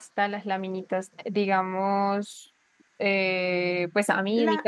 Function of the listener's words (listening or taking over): listening